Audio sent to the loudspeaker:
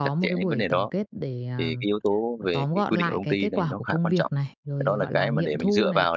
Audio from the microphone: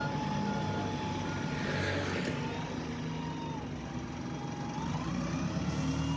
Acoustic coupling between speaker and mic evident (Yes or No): No